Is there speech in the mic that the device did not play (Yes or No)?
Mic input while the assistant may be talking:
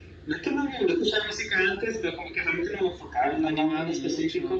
Yes